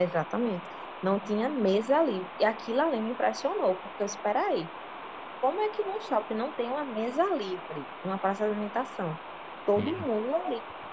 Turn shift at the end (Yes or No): No